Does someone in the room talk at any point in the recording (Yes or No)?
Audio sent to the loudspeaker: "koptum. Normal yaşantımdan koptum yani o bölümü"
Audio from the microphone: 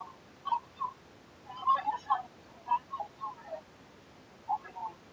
No